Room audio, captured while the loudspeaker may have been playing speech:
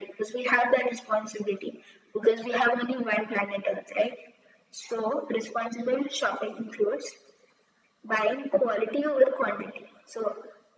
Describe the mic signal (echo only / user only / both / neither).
echo only